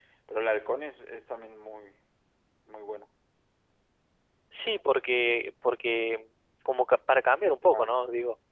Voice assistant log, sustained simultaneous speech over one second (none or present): none